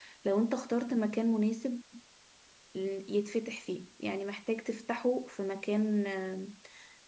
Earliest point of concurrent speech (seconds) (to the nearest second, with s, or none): none